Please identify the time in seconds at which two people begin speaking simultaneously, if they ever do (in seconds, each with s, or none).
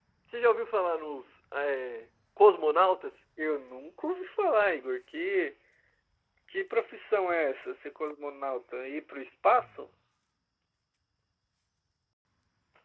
none